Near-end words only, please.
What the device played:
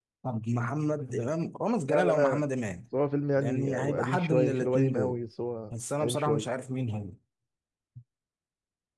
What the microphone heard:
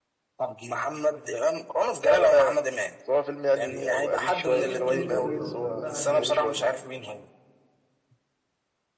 طب، سؤال سهل خالص أهو سألتها عليك

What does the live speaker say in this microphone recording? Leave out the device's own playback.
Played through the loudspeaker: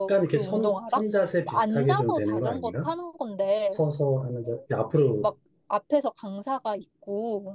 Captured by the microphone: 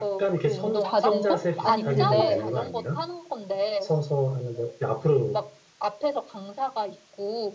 자전거? 아니, 근데

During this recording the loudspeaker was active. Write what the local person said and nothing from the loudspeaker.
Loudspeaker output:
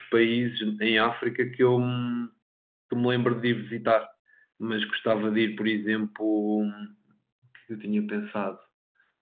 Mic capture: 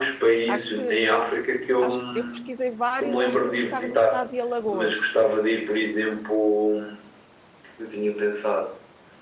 Acho que, acho que eu pesquisei vários, acho que esse ficava no estado de Alagoas.

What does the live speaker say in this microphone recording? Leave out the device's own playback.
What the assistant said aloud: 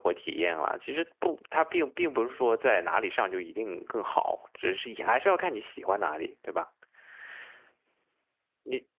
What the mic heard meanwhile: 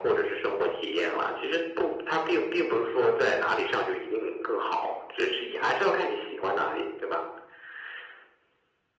none

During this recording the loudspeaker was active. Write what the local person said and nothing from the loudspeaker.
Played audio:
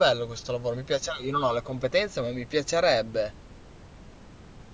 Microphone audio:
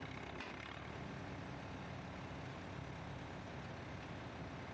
none

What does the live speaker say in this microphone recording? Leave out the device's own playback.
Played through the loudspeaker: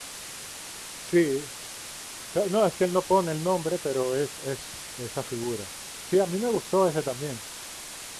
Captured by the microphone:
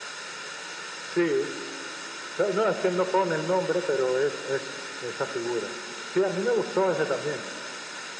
none

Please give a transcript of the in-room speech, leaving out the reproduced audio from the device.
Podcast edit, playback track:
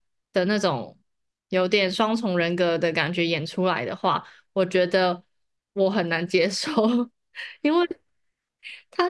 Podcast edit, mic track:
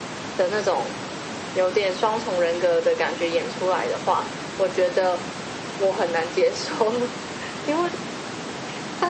none

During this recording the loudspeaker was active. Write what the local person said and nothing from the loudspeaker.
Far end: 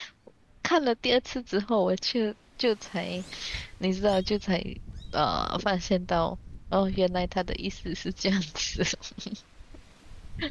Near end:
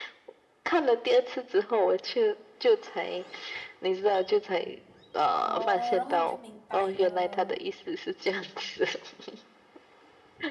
哦，然后你就明白了。

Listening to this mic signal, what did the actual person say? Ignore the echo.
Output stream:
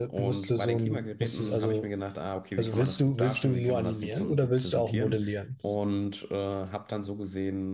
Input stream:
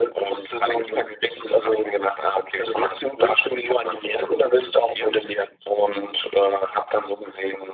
none

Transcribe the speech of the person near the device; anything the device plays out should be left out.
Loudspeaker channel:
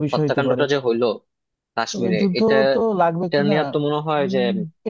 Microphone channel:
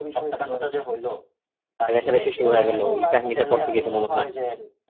রেষারেষি শুরু হয়ে গেল ওই কাহিনীটার পর থেকে তো মনে হয়

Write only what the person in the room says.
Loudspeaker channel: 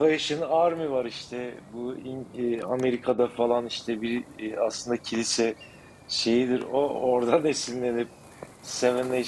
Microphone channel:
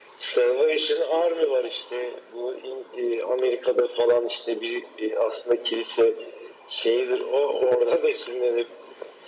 none

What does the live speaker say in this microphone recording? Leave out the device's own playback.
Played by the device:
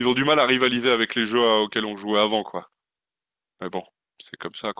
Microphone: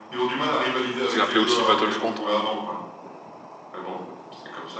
C'est appelé aussi Battlefront.

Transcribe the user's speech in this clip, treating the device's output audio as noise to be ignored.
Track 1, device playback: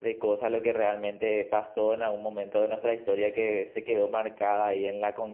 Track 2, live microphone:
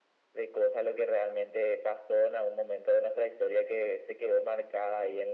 none

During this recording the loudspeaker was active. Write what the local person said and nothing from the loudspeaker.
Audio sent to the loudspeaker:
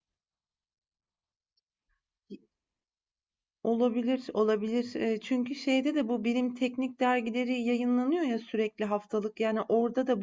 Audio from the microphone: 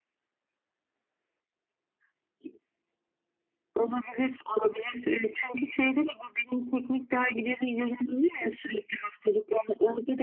none

